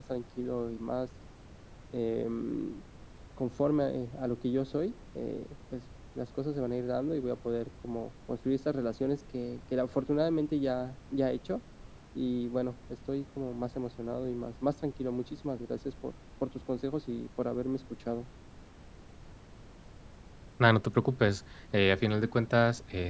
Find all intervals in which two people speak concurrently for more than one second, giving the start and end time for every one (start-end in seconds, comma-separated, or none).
none